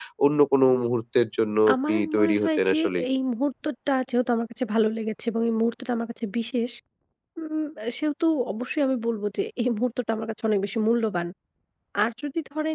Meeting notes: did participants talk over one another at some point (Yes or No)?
Yes